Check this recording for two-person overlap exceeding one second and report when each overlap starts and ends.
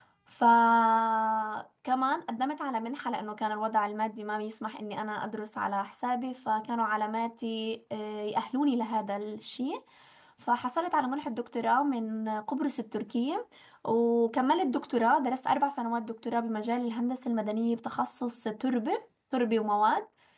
none

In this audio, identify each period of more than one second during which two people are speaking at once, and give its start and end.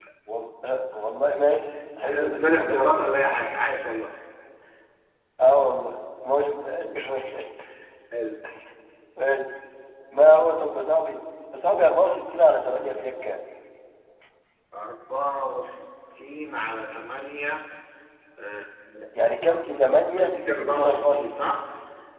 2.0-3.3, 20.2-21.6

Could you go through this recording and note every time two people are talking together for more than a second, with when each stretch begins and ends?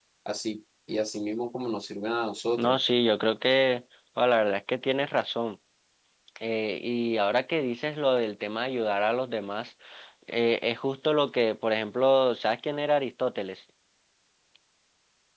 none

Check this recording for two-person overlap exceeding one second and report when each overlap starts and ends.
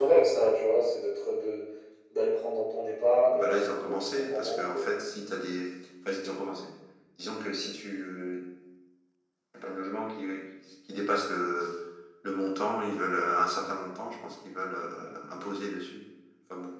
3.3-5.0

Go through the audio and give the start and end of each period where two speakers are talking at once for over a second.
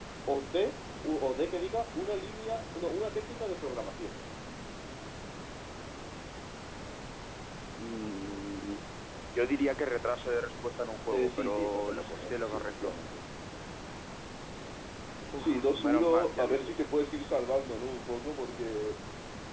11.1-12.9, 15.4-16.7

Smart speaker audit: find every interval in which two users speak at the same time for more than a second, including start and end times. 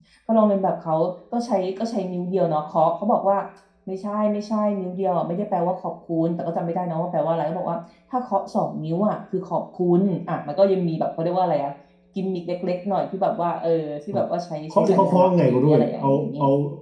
14.7-16.3

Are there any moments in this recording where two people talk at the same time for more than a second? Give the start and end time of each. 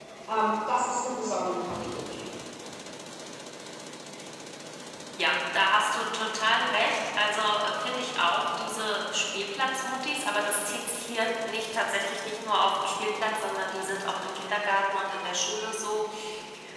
none

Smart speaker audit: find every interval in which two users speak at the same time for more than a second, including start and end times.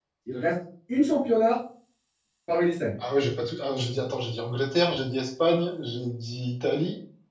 none

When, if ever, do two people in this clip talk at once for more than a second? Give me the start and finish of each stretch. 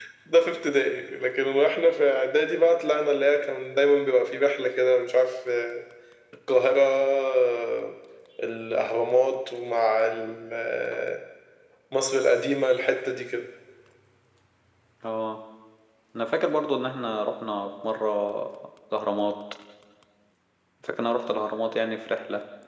none

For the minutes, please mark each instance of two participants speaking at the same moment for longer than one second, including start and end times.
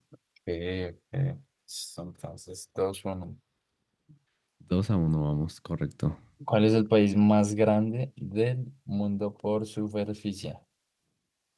none

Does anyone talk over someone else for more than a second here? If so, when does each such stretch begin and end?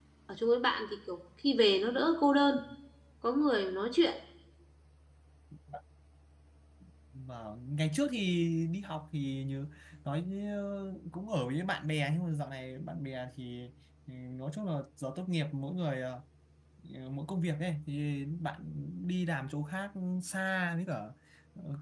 none

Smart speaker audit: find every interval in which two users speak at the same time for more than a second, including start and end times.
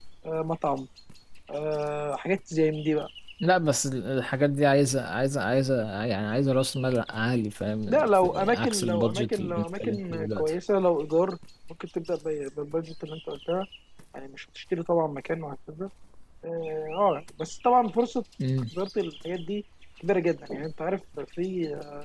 7.9-10.5

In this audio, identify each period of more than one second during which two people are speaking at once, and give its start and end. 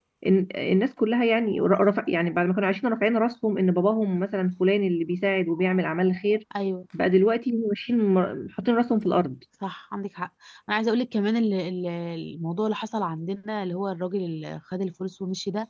none

